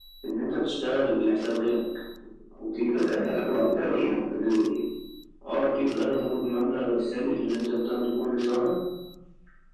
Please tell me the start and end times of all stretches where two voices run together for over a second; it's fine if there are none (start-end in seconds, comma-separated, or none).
2.8-4.2